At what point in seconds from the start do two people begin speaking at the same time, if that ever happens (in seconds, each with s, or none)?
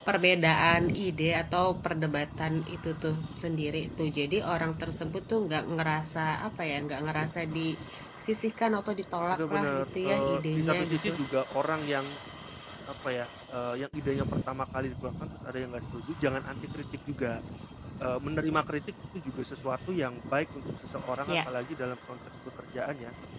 9.3 s